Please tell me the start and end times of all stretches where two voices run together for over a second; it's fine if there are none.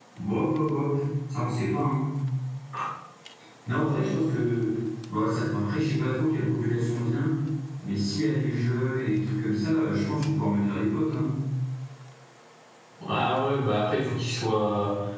none

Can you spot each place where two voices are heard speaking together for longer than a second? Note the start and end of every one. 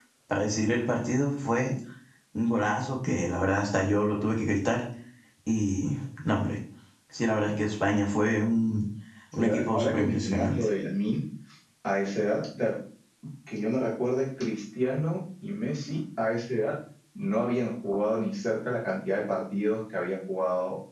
9.3-10.7

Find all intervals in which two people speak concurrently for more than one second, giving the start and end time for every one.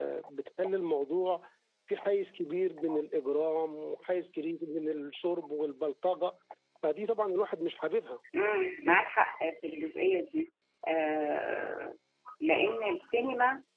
none

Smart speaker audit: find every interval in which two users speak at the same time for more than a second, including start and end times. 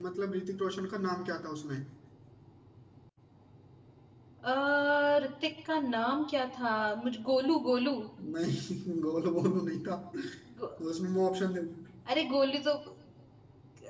none

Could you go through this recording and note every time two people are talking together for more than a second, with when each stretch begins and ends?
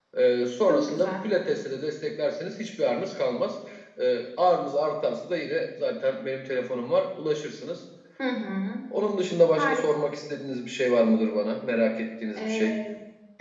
none

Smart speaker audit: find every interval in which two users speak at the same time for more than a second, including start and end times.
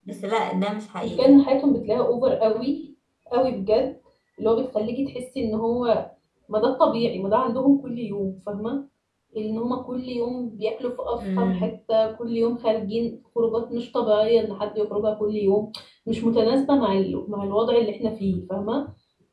none

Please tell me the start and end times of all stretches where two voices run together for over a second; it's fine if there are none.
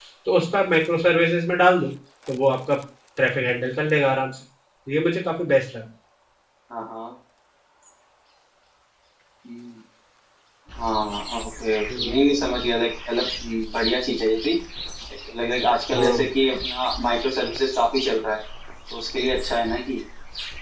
none

